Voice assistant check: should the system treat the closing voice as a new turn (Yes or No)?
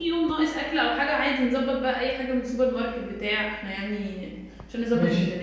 Yes